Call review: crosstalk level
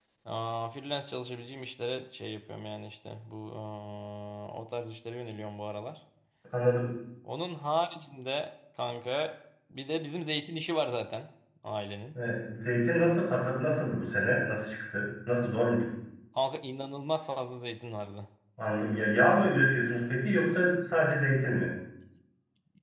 none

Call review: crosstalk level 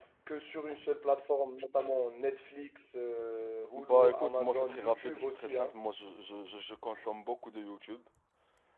present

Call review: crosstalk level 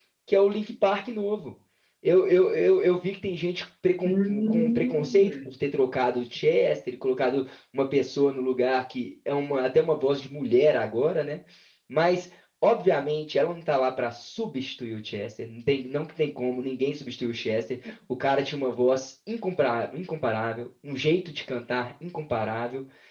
present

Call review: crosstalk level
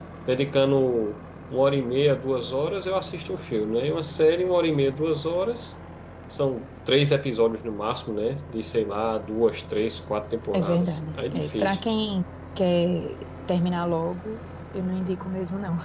present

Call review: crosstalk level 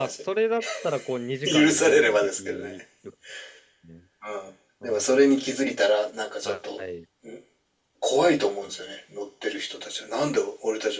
present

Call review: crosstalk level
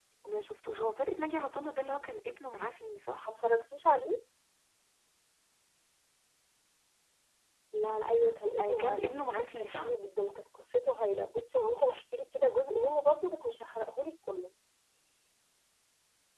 present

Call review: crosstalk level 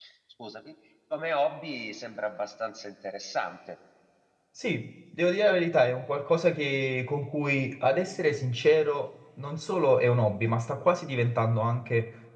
none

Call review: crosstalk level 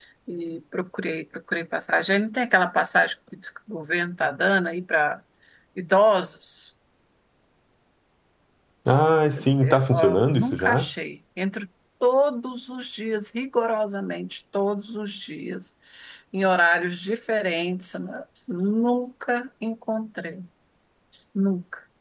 present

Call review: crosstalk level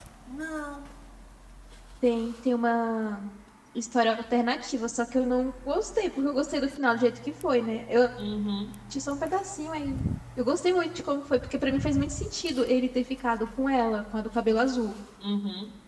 none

